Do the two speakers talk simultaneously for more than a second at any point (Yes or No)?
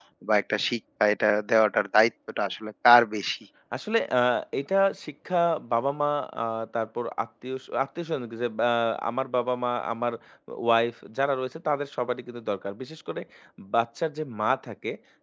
No